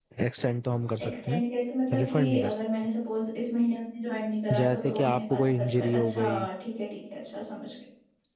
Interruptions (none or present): present